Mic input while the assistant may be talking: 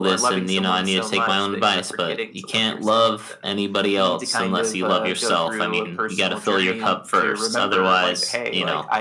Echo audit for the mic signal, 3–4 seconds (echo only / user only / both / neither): echo only